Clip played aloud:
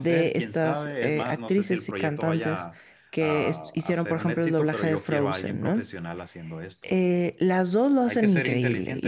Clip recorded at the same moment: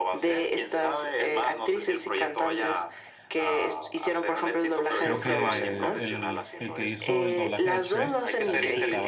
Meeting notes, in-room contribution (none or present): present